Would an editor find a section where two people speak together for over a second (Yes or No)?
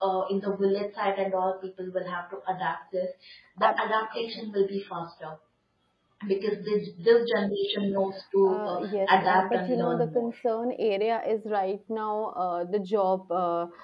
Yes